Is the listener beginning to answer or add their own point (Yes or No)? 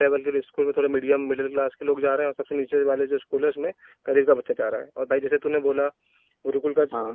No